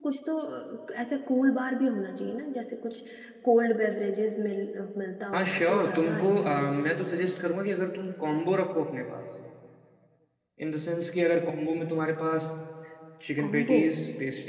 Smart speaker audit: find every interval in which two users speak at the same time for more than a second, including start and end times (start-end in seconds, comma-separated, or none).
5.3-6.6